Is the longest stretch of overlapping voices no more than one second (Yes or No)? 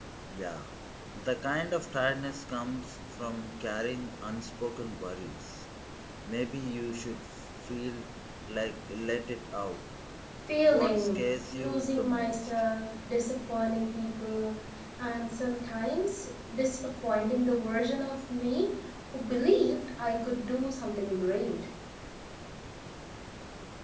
No